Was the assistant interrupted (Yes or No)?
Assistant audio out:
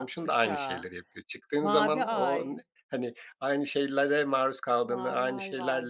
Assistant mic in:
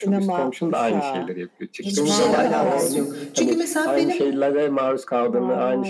Yes